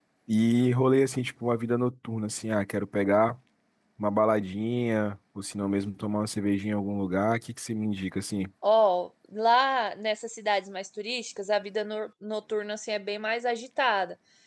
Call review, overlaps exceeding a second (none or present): none